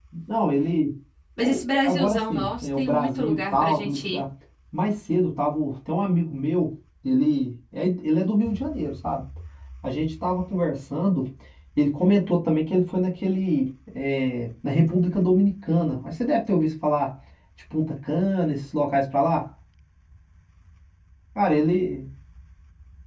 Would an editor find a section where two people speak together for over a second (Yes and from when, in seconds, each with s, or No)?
Yes, from 1.4 s